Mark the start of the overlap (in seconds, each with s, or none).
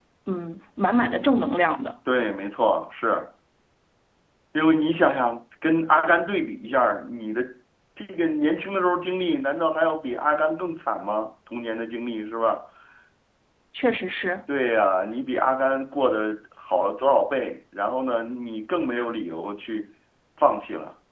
none